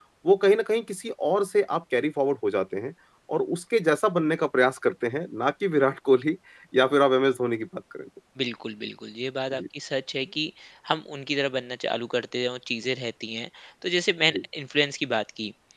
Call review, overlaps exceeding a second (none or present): none